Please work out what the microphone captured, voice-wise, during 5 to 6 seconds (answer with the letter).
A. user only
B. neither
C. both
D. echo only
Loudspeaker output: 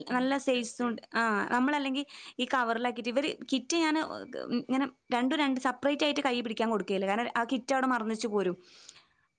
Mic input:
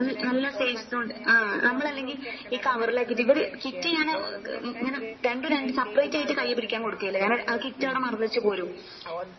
C